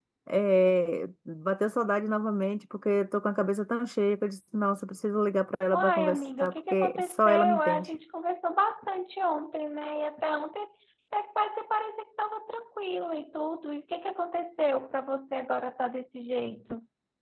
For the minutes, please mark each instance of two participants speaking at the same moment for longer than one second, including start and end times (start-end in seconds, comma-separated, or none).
5.7-7.9